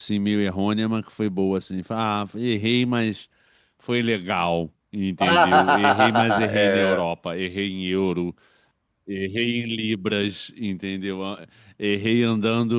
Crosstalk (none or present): present